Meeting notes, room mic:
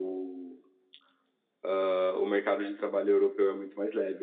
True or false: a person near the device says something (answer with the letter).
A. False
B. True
A